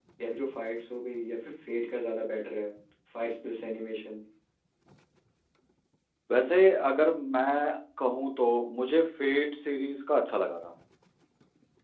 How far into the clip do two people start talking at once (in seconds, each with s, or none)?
none